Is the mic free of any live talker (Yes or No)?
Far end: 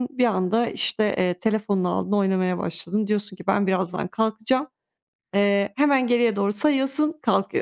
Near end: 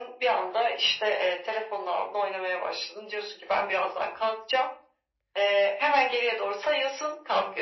Yes